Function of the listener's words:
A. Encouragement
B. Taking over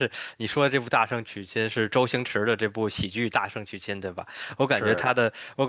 A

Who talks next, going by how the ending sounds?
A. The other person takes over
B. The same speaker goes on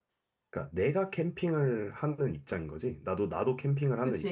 A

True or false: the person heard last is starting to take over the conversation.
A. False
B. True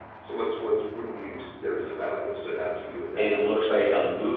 B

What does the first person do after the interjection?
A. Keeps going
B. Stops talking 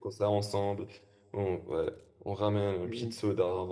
A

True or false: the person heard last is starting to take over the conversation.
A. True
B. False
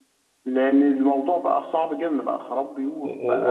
A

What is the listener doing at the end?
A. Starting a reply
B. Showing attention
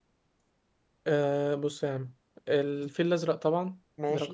B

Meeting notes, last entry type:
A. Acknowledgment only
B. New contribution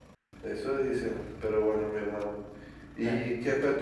A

